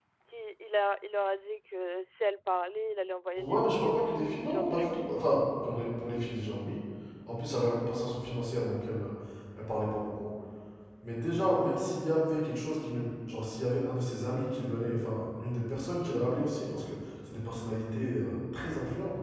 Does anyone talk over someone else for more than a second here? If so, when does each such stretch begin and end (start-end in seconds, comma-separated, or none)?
3.4-5.2